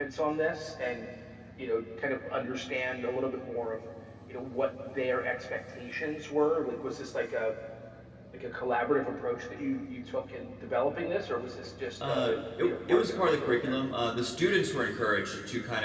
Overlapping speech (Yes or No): Yes